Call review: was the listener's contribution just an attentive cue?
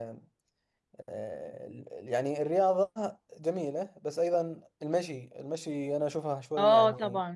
No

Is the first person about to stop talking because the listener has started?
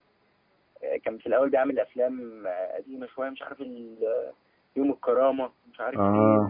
No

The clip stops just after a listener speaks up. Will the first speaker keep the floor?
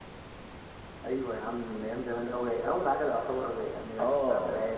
No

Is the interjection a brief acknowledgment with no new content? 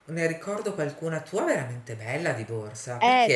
No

